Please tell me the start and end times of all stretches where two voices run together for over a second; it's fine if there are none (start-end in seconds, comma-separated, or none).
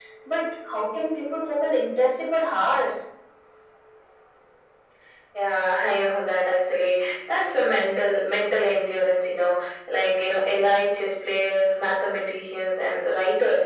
none